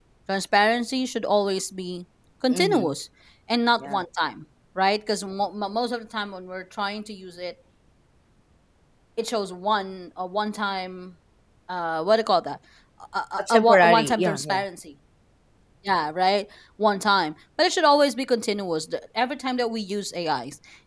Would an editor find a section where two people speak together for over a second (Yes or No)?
Yes